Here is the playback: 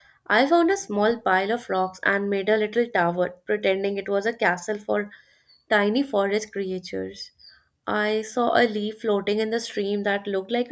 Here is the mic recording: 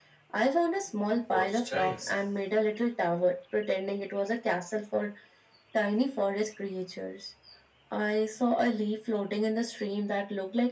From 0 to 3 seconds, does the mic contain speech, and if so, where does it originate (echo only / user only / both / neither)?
both